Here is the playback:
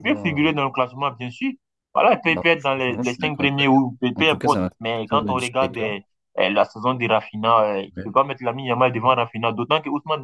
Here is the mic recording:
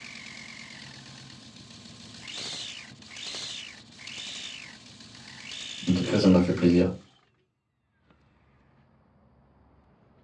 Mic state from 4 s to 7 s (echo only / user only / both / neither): user only